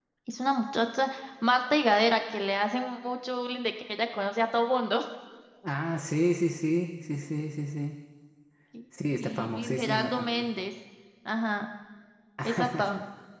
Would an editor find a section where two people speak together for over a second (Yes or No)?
Yes